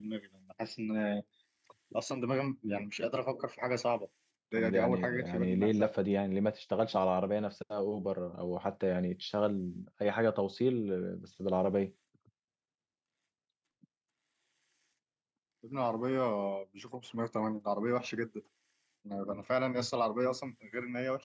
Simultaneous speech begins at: 4.6 s

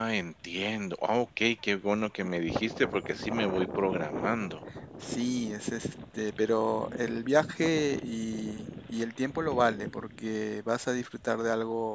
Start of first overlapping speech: none

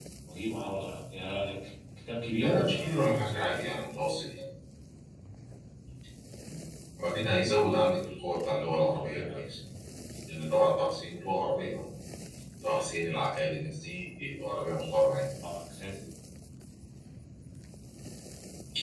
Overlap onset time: 2.4 s

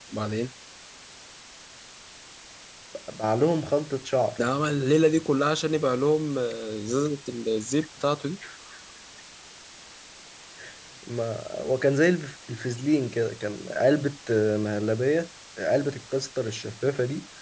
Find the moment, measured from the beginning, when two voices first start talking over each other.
none

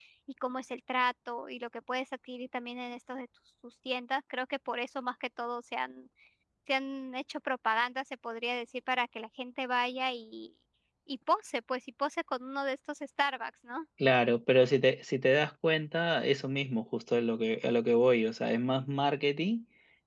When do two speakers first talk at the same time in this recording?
none

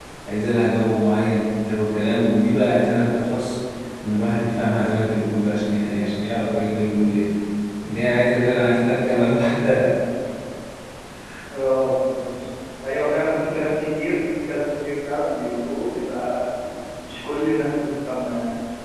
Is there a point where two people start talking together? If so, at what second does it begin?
none

